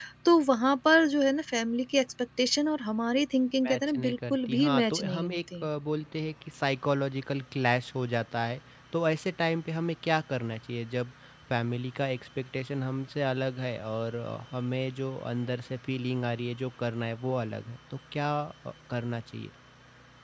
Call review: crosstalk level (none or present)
present